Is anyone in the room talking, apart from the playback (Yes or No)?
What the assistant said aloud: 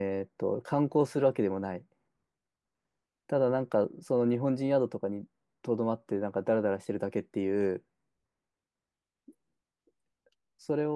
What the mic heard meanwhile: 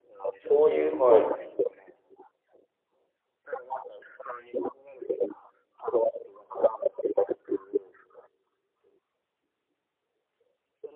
Yes